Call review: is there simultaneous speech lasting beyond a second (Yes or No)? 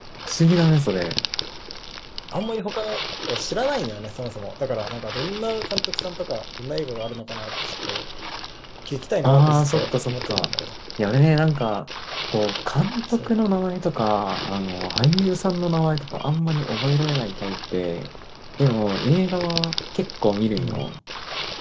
Yes